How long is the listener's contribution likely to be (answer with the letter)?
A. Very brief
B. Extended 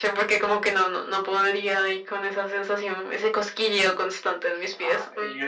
B